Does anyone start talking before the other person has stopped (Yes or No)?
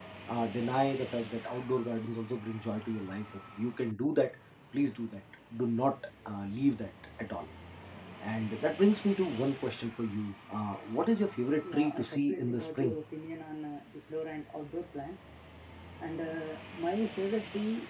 Yes